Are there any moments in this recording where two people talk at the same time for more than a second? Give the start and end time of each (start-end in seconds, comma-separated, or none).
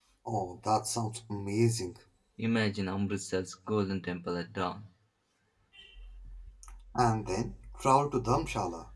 none